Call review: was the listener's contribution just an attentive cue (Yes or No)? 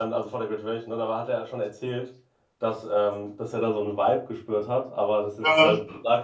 Yes